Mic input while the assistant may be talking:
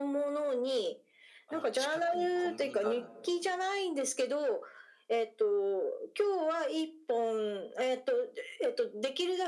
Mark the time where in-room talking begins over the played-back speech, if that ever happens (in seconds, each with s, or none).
1.4 s